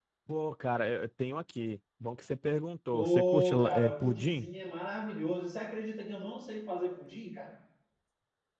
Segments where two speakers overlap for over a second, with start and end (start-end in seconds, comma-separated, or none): 2.9-4.5